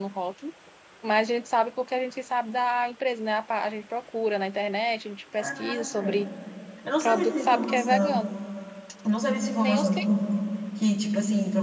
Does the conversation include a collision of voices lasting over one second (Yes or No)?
Yes